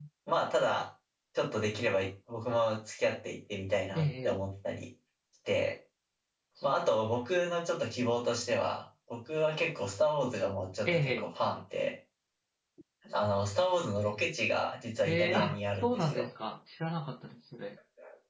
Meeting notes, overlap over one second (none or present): present